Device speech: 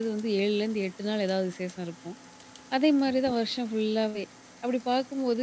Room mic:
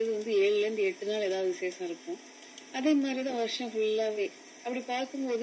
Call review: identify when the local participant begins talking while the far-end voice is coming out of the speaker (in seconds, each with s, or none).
none